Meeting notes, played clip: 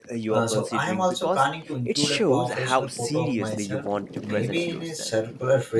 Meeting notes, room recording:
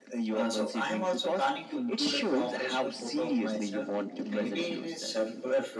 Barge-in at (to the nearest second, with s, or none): none